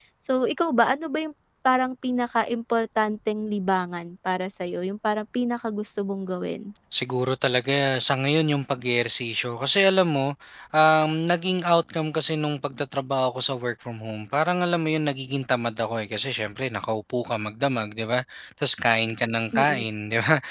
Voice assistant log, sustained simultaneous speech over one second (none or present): none